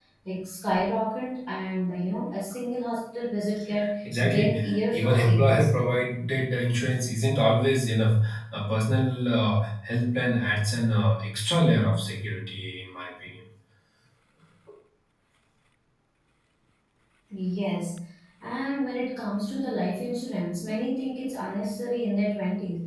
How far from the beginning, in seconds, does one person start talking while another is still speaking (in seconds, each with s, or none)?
4.3 s